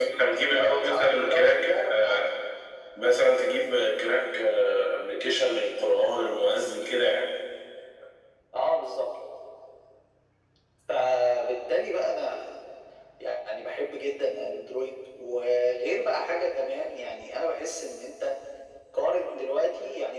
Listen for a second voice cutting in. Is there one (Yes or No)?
Yes